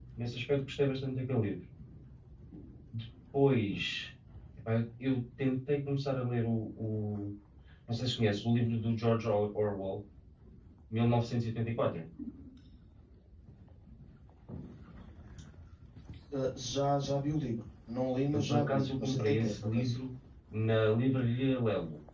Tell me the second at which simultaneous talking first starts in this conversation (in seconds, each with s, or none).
18.3 s